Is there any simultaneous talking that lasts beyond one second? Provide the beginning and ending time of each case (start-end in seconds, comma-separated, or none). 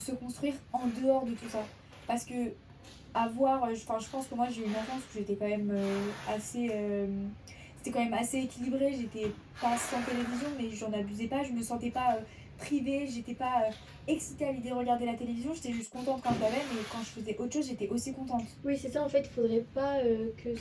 none